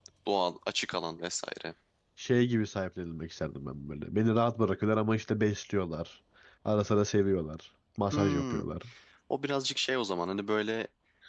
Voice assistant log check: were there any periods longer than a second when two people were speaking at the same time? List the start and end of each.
none

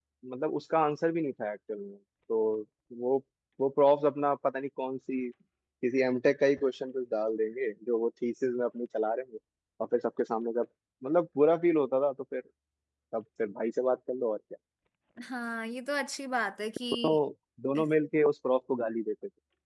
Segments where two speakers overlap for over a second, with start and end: none

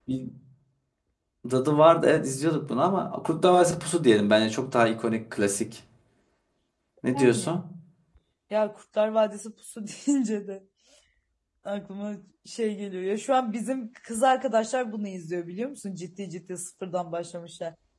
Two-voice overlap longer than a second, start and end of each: none

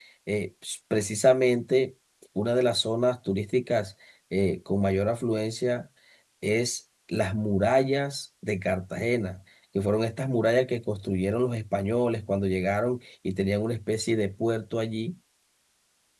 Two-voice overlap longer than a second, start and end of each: none

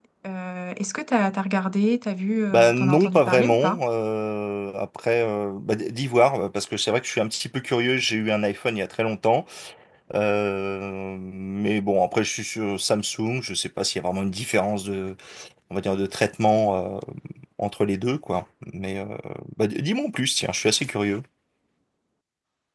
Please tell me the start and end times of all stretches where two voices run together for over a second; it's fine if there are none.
2.5-3.8

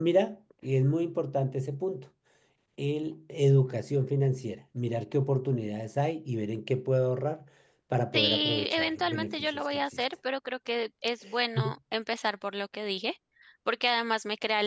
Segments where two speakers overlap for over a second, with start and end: 8.1-10.0

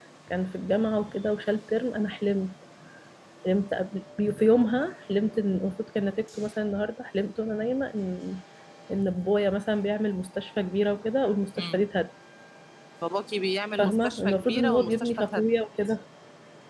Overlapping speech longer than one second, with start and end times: 13.8-15.5

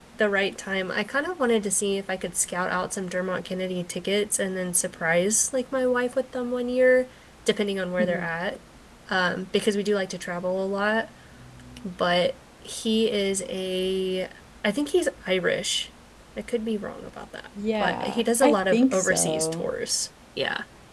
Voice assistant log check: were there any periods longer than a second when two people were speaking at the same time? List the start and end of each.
17.8-19.7

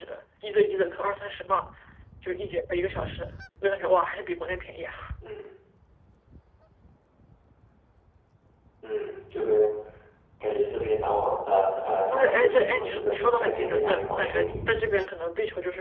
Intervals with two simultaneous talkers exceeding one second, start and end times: 12.1-14.6

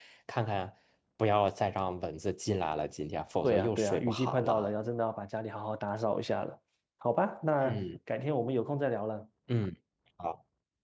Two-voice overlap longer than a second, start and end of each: 3.4-4.7

